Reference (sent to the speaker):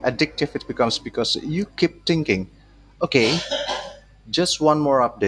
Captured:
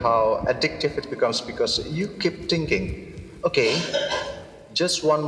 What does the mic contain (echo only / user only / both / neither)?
echo only